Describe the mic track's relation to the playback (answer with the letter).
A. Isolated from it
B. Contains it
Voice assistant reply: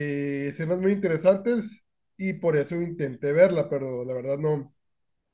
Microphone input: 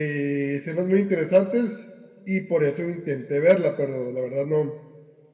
B